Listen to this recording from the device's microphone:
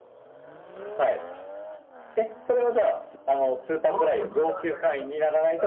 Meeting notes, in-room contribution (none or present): present